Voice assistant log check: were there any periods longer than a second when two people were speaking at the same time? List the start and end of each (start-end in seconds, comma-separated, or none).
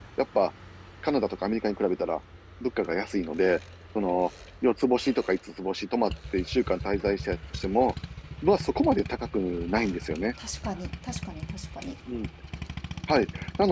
none